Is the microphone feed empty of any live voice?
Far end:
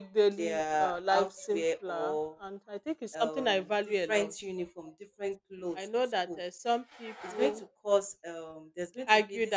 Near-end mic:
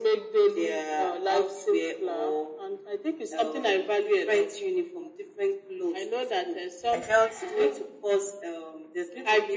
No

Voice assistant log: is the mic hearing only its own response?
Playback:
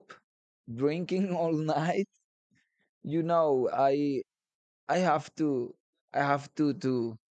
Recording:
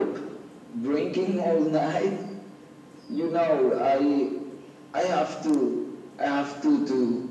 Yes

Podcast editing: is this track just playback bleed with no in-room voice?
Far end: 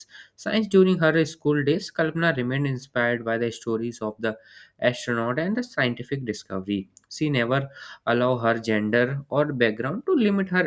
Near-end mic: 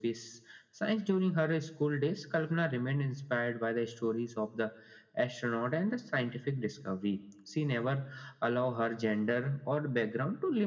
Yes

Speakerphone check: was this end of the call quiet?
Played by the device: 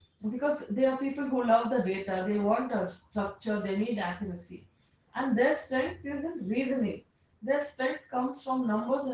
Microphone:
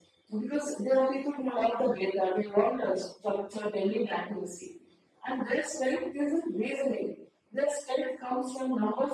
Yes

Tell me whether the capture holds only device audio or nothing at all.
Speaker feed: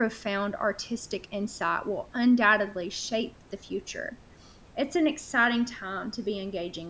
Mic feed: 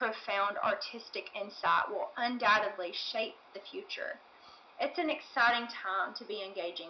Yes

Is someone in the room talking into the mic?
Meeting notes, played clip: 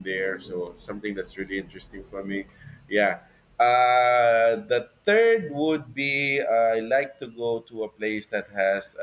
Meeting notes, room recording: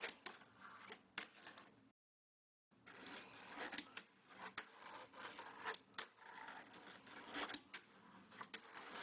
No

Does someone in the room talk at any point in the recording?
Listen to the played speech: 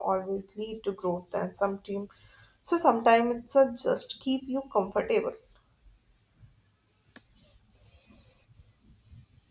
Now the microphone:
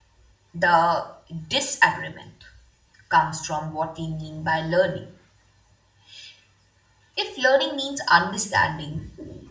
Yes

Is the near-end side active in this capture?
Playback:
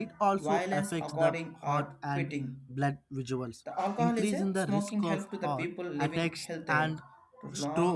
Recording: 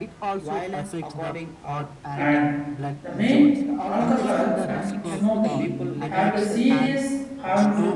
Yes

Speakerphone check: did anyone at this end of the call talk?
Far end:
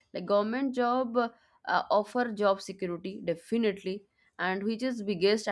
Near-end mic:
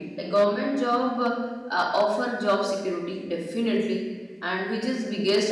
No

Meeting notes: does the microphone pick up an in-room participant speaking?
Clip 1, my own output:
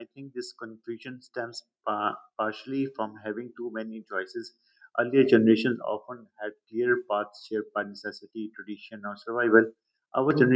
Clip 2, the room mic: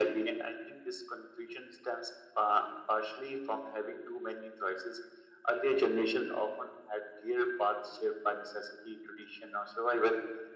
No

